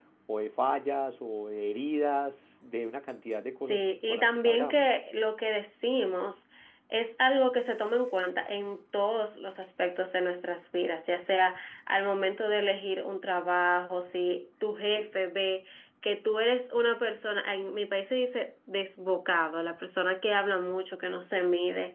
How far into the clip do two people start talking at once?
3.7 s

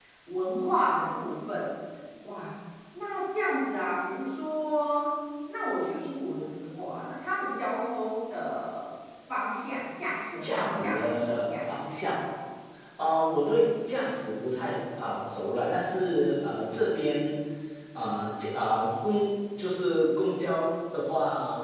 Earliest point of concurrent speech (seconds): 10.4 s

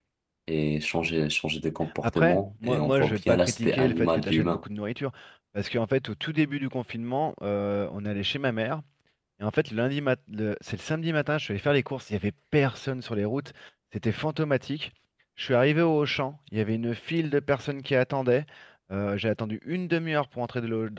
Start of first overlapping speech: 2.0 s

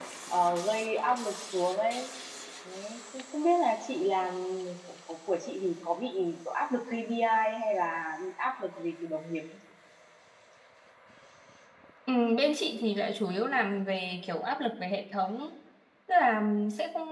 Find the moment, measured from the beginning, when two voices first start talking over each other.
none

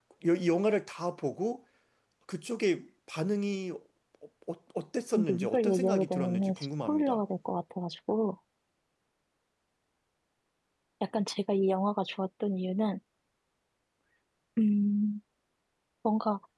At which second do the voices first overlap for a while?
5.2 s

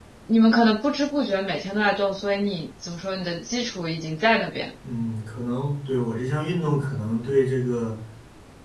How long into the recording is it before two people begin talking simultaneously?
none

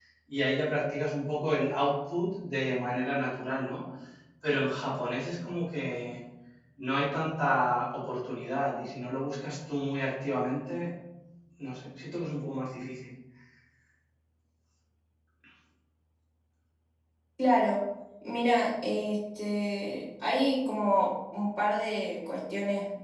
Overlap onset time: none

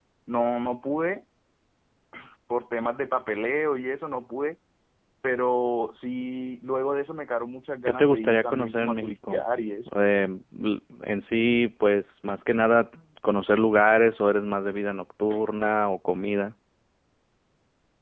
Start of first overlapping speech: 7.9 s

